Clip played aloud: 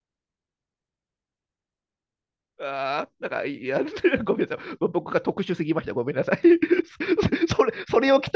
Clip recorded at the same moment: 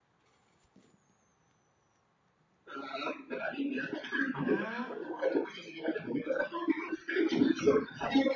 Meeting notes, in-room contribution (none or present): present